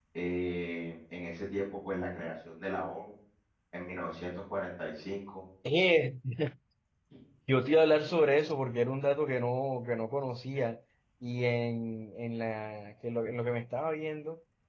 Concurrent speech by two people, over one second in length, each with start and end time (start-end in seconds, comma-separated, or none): none